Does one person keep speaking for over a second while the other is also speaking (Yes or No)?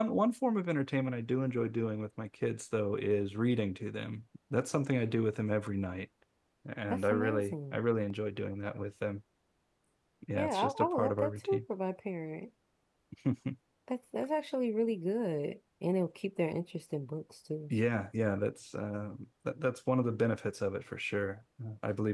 Yes